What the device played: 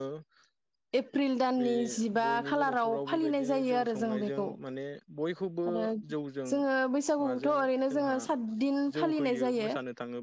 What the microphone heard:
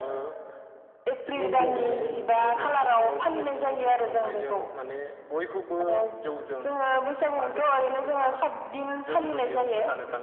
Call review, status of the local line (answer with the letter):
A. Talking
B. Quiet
A